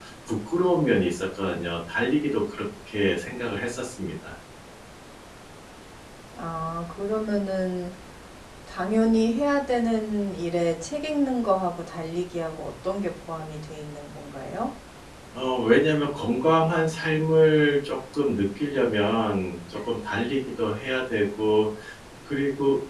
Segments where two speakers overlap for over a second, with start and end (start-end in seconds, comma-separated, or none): none